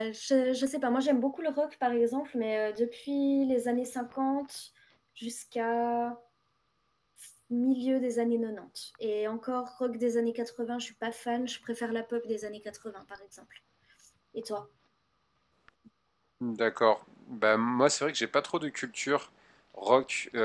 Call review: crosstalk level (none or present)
none